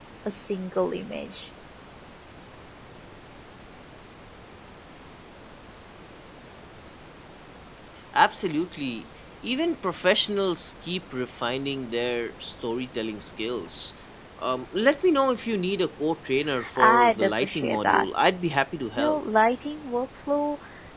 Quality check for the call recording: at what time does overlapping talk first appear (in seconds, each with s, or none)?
16.8 s